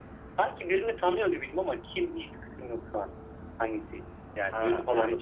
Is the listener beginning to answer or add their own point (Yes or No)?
Yes